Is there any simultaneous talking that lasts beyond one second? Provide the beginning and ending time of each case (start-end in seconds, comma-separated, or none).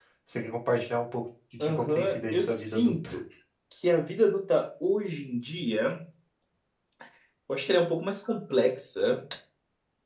1.6-3.2